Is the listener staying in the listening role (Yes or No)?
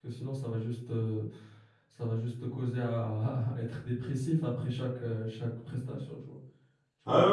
No